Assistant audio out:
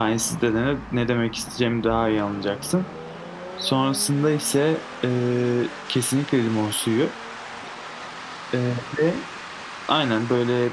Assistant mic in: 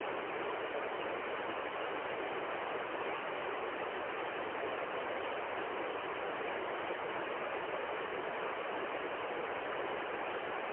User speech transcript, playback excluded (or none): none